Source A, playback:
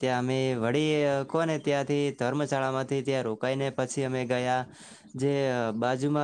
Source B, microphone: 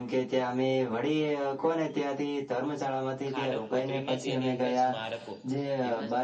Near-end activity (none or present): present